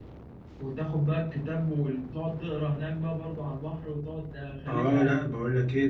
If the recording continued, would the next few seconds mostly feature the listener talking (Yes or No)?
Yes